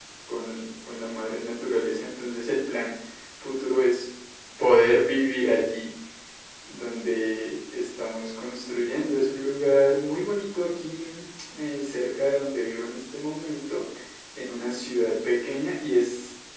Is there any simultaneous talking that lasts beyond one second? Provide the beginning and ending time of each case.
none

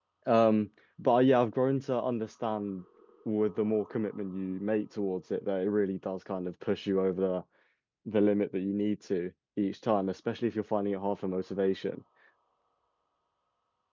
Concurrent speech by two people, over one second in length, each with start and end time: none

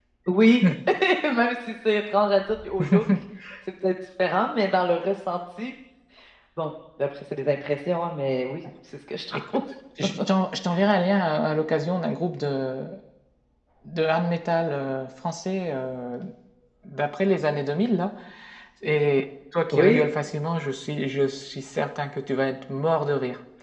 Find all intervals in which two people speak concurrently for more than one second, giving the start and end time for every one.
none

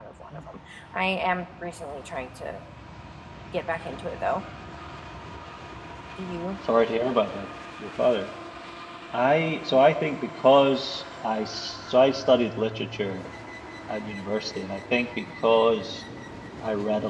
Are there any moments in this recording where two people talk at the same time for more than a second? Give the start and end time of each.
none

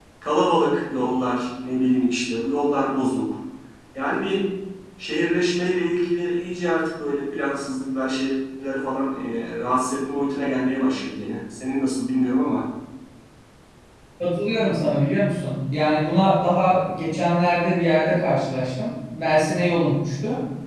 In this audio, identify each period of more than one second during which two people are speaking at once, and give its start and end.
none

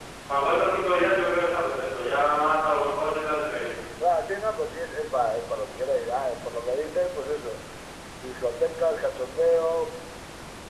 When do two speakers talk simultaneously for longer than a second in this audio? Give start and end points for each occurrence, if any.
none

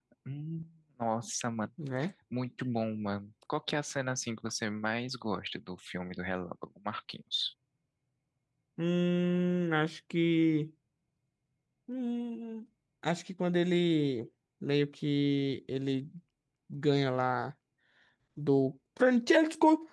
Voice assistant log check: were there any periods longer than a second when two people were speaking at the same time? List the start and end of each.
none

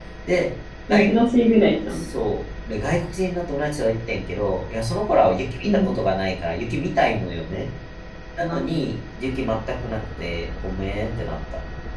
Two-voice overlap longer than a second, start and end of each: none

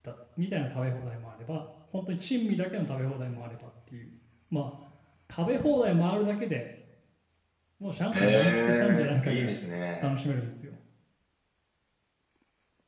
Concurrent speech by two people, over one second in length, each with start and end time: 8.1-9.6

